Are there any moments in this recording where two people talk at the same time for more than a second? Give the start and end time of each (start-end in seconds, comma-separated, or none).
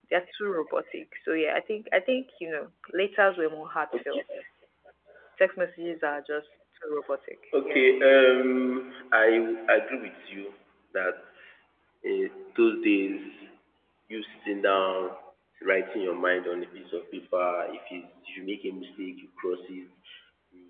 none